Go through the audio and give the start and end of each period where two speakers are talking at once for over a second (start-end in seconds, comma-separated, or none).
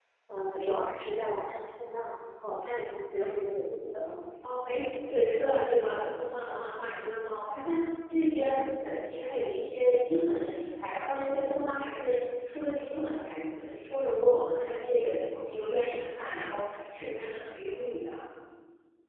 none